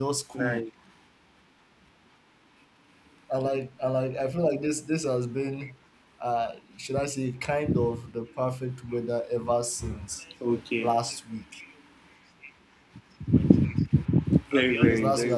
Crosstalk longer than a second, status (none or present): none